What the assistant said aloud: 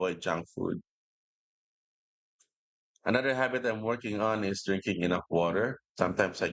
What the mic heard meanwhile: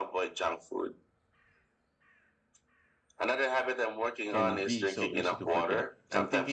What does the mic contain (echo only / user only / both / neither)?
both